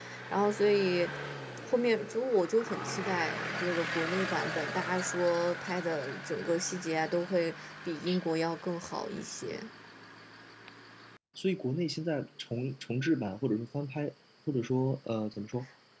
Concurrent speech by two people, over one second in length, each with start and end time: none

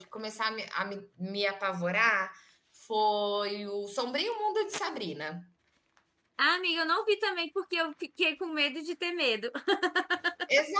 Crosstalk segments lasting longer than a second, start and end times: none

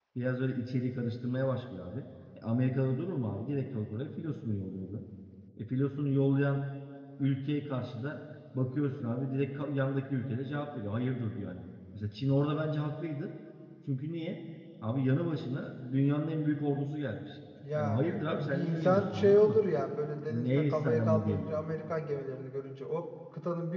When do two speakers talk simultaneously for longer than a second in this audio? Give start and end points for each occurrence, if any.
17.7-19.6, 20.3-21.6

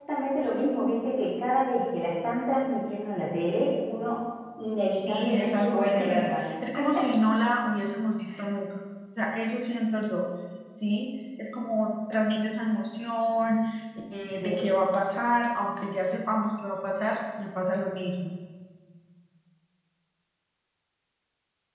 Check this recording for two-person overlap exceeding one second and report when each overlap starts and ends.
5.1-6.4

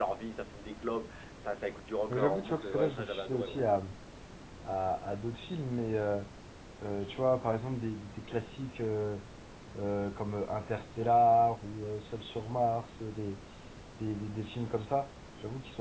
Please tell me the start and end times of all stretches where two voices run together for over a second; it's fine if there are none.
2.1-3.6

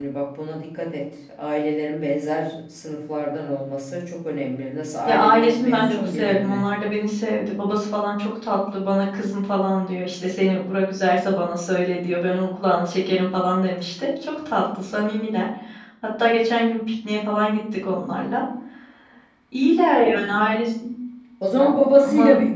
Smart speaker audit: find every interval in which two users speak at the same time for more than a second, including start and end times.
5.1-6.6

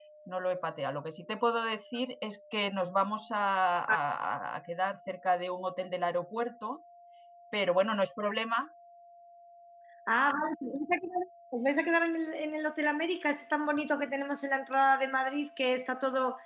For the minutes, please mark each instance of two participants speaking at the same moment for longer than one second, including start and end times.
none

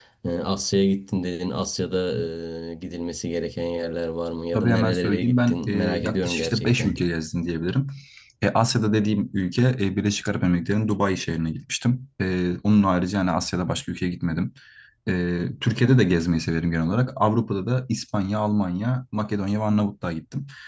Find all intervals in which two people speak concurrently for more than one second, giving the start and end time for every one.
4.5-7.0

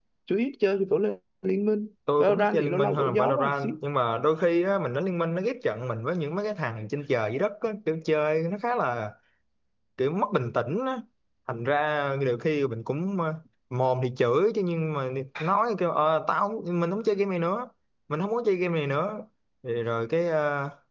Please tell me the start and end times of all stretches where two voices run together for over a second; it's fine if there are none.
2.2-3.7

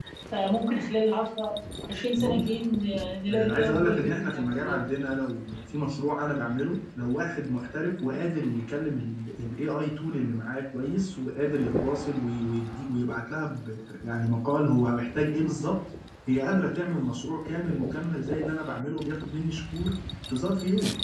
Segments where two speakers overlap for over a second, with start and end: 3.3-4.8

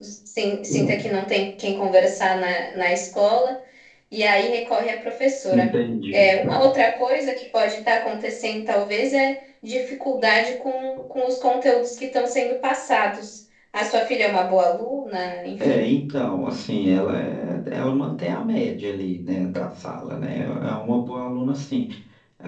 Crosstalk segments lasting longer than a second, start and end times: none

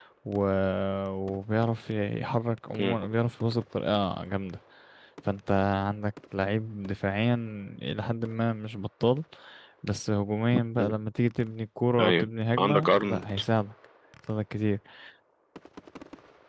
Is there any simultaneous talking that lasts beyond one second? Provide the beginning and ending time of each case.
12.0-13.2

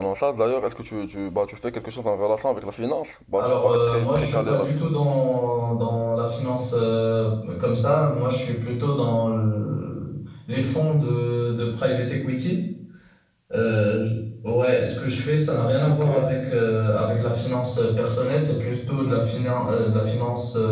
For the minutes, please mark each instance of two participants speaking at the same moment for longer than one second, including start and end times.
3.4-4.8

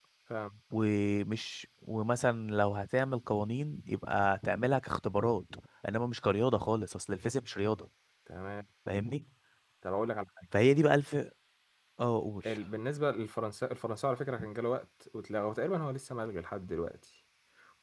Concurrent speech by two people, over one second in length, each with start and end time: none

